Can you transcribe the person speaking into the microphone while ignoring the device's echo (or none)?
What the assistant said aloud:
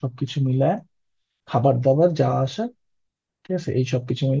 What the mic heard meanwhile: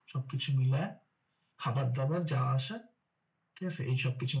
none